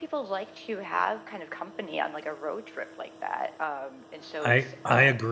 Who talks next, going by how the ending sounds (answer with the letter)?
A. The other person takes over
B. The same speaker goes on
A